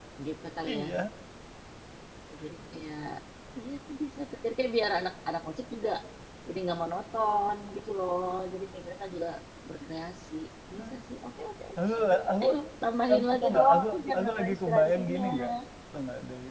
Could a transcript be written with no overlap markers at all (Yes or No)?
No